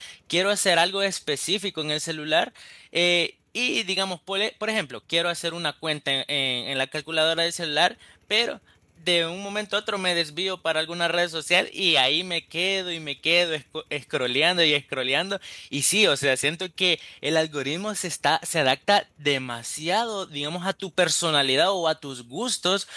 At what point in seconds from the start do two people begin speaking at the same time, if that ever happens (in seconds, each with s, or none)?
none